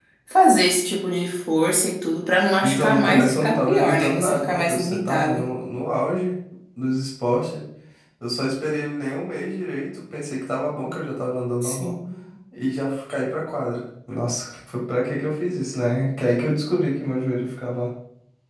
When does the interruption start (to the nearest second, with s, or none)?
3 s